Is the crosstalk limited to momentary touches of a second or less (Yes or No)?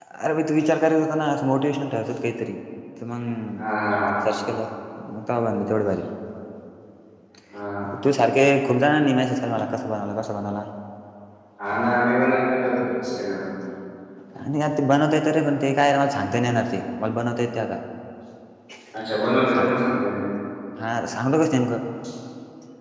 Yes